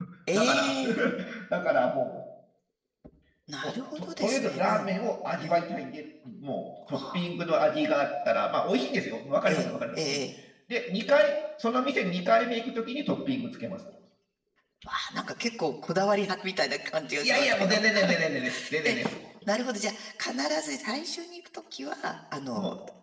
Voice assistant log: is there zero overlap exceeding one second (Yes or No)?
No